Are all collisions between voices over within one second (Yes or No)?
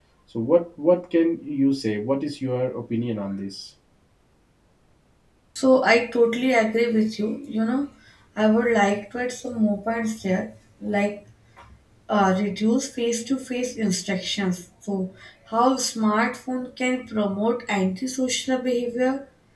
Yes